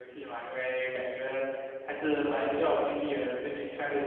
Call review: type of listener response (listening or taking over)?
listening